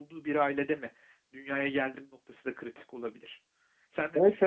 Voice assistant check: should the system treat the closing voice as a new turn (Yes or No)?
Yes